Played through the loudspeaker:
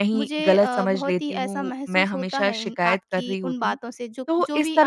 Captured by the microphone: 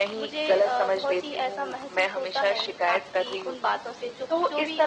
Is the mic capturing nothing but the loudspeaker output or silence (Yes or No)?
Yes